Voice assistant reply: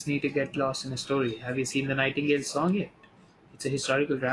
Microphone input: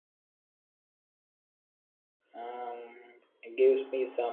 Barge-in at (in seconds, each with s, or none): 2.4 s